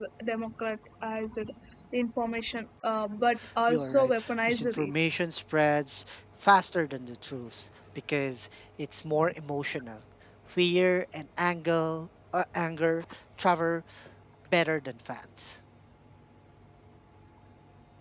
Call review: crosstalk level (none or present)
present